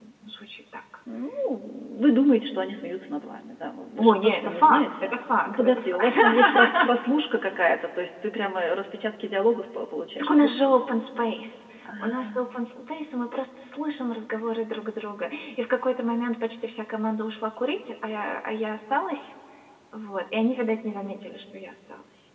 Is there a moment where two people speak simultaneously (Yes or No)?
Yes